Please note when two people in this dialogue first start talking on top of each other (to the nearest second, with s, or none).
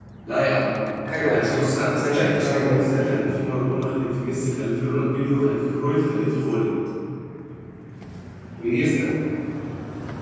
1 s